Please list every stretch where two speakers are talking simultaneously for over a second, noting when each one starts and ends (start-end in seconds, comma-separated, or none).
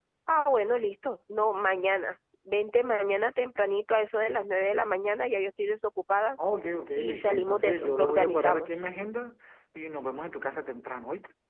7.0-8.8